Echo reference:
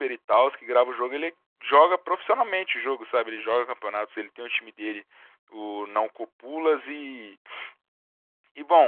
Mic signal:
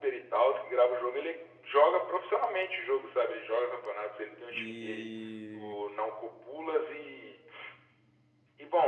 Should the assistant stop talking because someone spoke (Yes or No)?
Yes